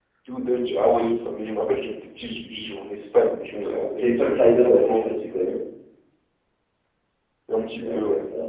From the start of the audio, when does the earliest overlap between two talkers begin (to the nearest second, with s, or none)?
4 s